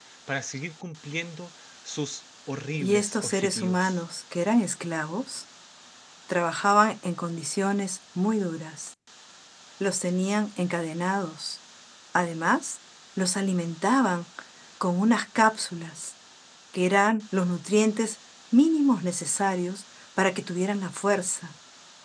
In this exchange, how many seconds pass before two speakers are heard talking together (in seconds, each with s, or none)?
2.8 s